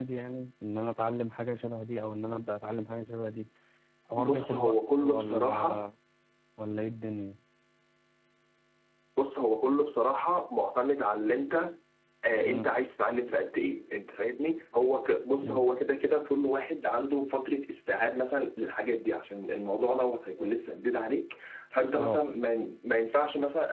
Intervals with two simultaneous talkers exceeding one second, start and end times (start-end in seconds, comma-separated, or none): 4.2-5.8